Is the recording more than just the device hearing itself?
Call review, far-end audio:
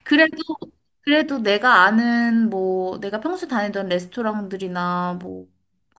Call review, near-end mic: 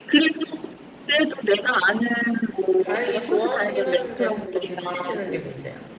Yes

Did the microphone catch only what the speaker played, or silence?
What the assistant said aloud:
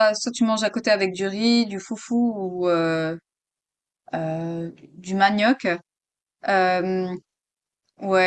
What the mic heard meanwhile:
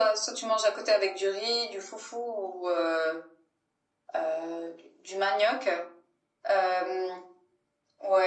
Yes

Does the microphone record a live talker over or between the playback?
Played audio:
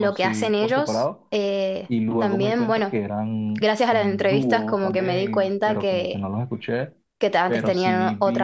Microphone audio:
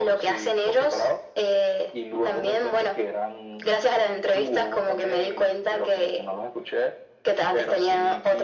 No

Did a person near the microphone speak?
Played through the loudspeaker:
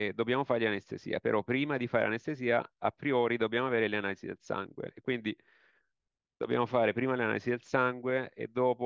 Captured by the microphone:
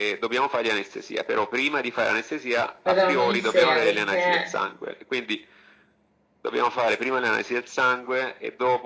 Yes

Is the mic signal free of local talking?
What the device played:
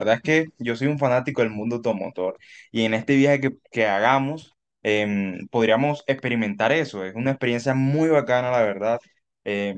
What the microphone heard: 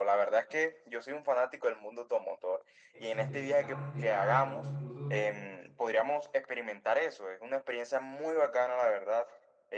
No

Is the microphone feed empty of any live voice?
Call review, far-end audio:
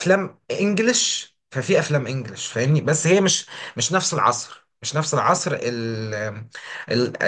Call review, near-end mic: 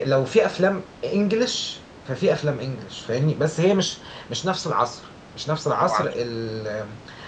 No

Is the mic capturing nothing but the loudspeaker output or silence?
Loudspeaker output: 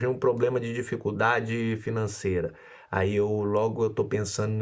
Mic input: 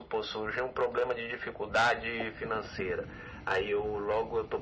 Yes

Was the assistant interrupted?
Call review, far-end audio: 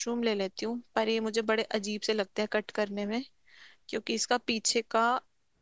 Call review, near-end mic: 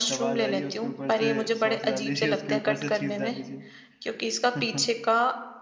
Yes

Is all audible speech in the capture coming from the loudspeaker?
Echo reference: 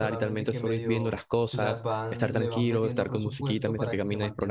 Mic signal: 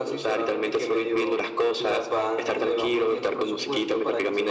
Yes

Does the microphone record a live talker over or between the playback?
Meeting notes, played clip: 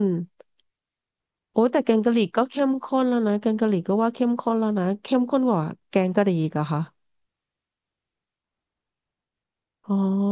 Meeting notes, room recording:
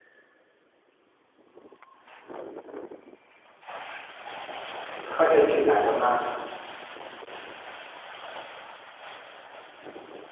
Yes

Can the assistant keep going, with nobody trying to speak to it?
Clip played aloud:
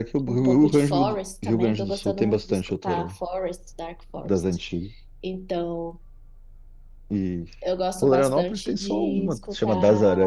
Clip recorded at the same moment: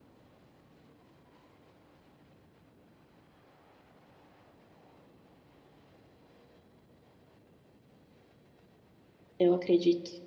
No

